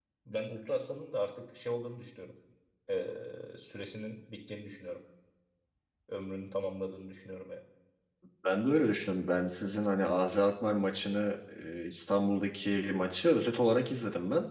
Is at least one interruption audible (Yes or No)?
No